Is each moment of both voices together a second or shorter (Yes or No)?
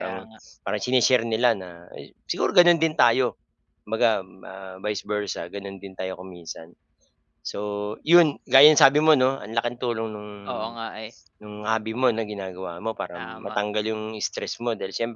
Yes